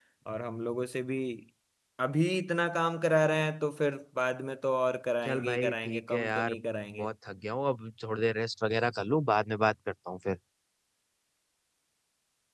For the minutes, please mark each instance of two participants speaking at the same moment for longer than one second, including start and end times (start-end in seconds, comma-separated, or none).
5.3-6.5